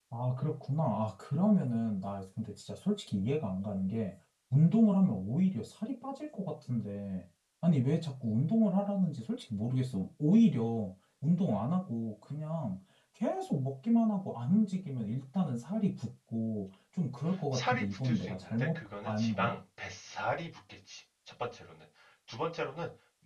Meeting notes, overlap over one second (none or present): present